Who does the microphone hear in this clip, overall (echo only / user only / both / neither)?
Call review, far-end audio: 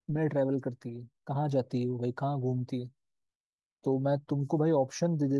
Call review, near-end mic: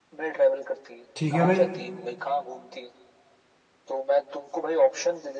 both